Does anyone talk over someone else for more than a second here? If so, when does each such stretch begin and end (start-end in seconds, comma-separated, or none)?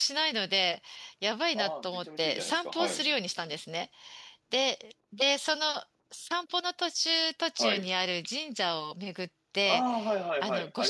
1.6-3.1